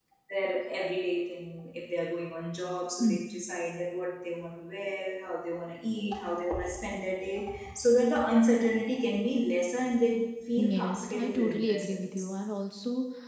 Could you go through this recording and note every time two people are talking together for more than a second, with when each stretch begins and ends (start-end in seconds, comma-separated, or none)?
10.6-12.2